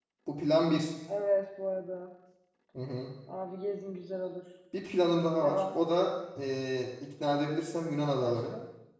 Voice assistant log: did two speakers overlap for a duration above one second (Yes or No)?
No